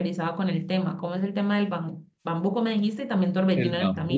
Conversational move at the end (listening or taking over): taking over